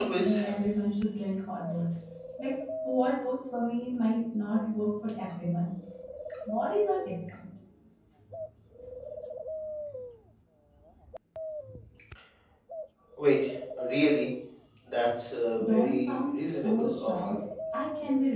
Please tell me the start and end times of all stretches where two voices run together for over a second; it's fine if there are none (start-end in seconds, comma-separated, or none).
15.6-17.4